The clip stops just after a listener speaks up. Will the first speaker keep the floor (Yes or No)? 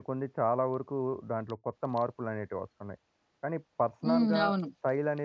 Yes